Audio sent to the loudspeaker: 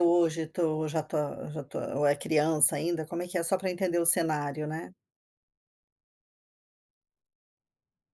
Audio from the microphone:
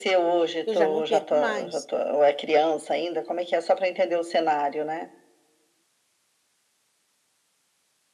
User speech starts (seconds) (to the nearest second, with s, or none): 1 s